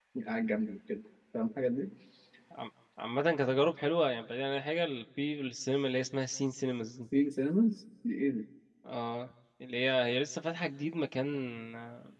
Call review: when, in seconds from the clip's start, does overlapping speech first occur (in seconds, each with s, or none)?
none